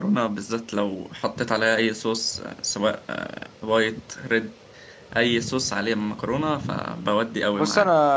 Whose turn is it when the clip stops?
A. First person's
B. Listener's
B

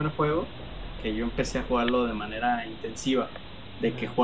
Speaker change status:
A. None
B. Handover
A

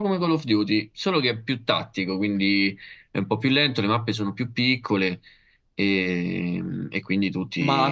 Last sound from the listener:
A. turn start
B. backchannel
A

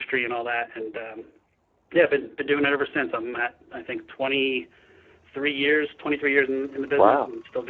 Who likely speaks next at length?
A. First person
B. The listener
B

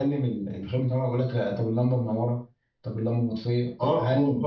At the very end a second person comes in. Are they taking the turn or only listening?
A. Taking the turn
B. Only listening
A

